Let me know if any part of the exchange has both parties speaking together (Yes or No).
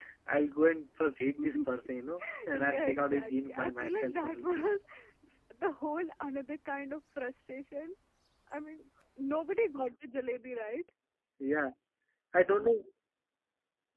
Yes